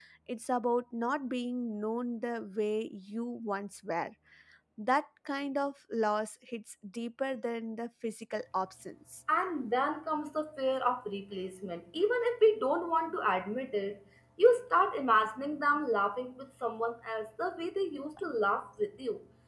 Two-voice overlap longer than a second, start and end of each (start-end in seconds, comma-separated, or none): none